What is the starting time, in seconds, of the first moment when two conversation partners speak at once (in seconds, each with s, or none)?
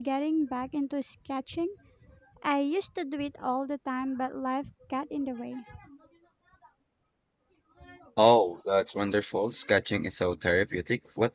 none